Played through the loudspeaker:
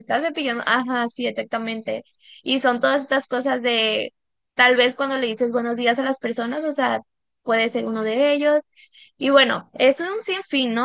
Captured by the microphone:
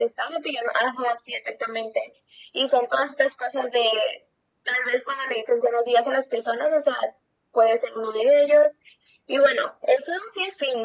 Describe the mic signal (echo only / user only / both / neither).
echo only